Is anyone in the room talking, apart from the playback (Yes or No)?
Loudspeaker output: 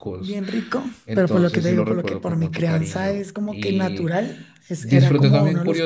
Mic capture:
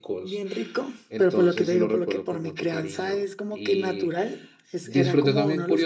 No